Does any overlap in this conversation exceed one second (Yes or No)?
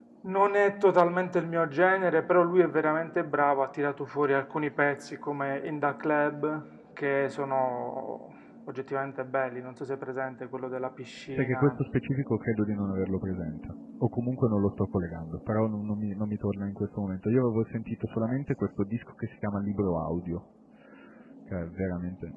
No